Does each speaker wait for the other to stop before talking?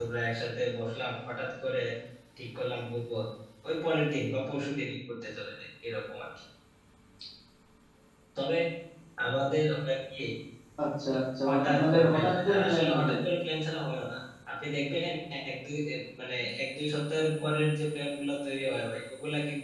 No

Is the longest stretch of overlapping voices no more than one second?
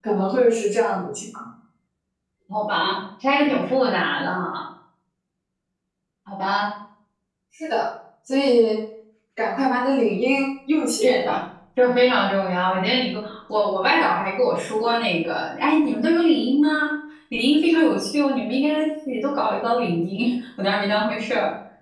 Yes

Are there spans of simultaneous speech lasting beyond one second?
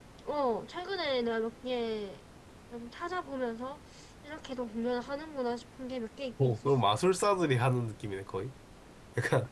No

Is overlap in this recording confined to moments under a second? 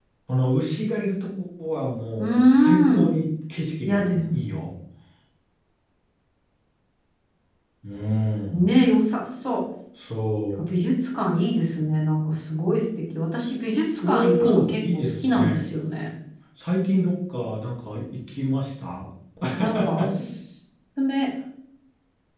No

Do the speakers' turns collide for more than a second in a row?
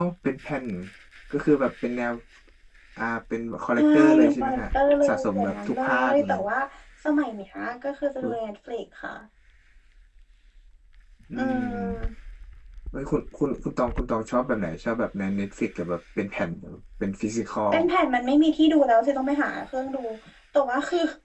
Yes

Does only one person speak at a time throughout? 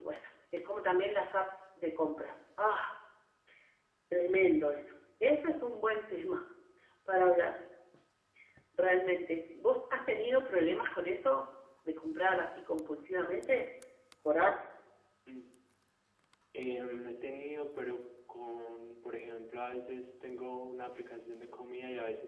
Yes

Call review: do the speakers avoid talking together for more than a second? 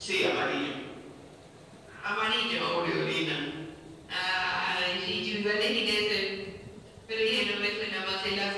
Yes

